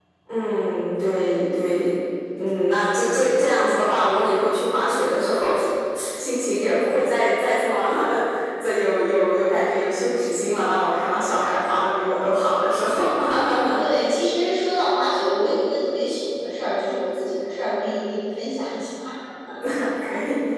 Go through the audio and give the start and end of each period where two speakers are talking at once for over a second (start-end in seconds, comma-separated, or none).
none